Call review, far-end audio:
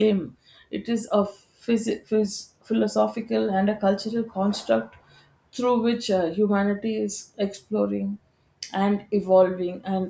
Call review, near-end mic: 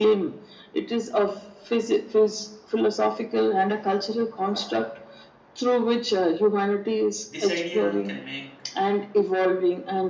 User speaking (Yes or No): Yes